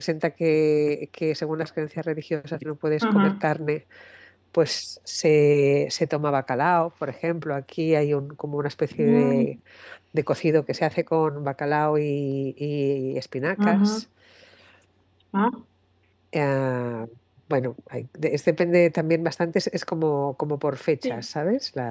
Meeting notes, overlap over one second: none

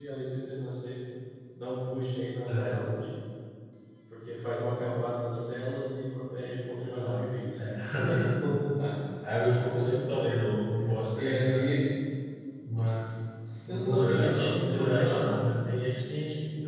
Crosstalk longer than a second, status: present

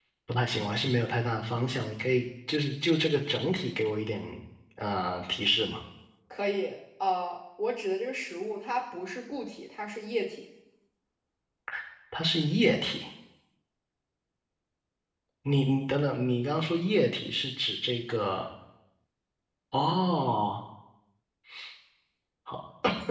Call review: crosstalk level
none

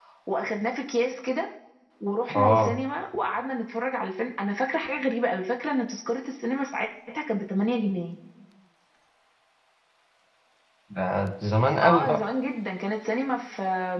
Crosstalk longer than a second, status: none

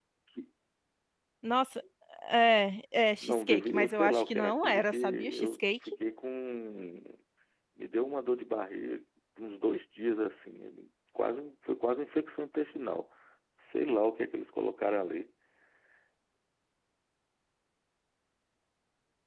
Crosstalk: present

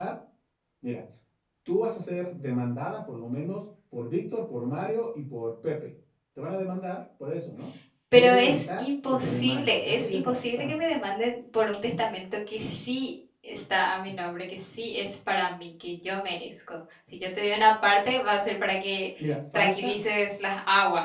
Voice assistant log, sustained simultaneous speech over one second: present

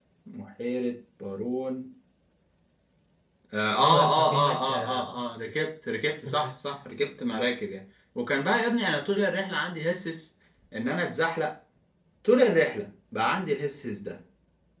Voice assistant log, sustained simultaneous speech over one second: present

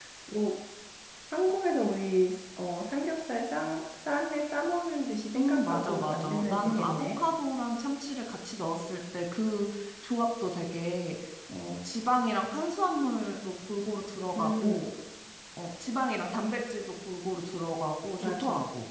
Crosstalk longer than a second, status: present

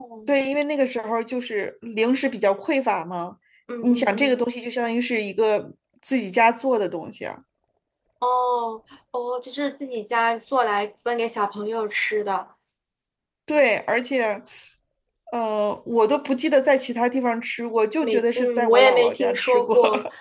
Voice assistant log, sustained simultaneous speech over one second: present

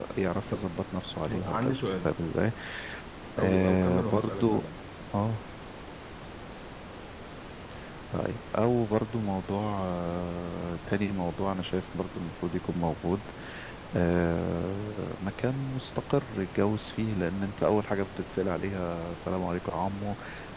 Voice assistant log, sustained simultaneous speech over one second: present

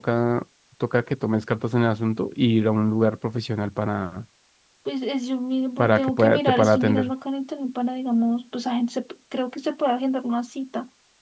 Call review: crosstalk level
present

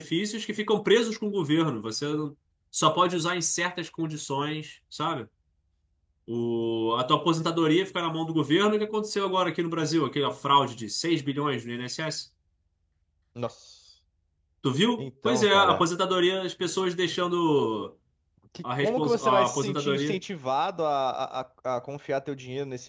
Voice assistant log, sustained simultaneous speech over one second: present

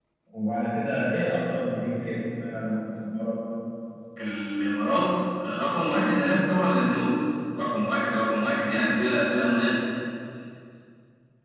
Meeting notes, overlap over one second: none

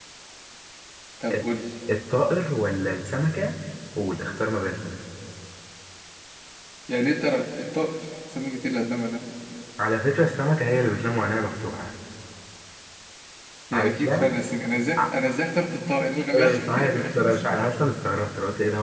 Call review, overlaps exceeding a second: present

